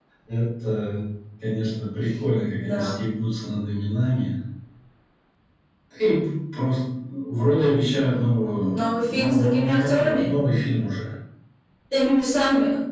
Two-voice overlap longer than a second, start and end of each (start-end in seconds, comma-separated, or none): 8.7-10.3